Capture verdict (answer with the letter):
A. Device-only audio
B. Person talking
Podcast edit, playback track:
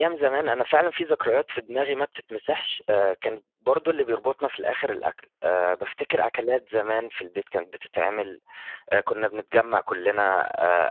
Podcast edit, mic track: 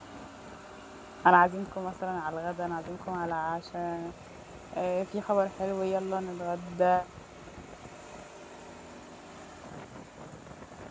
B